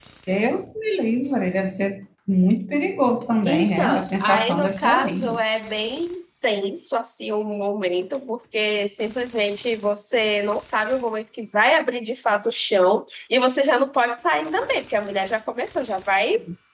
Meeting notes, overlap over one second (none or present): present